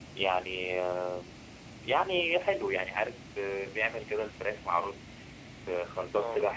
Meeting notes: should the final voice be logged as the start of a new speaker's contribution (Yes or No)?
No